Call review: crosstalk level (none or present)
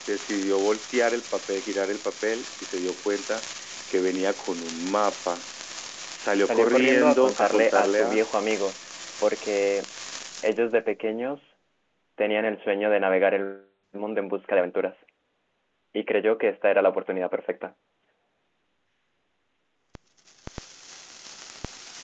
present